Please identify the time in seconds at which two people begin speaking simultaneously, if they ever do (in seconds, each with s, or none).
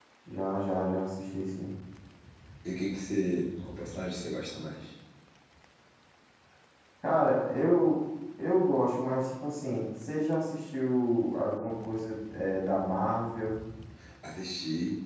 none